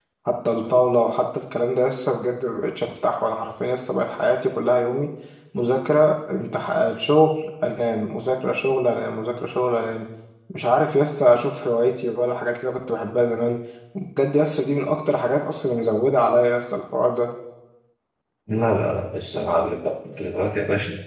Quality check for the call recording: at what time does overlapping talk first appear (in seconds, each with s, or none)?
none